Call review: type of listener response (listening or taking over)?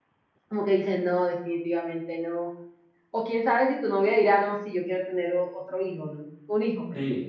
taking over